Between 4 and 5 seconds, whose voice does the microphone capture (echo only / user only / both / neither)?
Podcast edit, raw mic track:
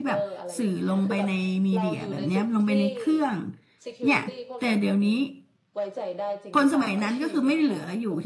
both